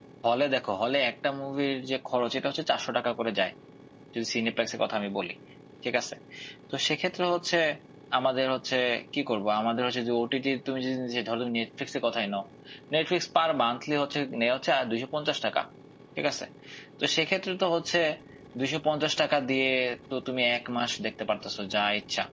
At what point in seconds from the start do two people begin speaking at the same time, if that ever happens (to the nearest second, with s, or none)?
none